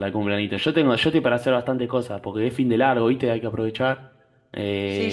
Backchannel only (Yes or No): No